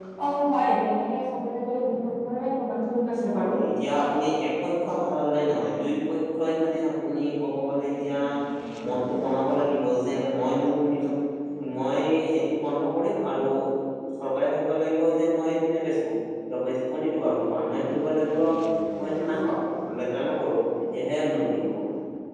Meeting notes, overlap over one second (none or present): none